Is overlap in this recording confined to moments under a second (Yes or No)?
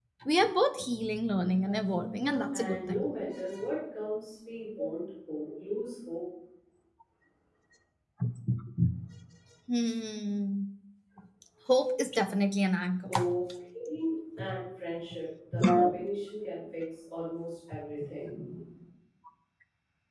No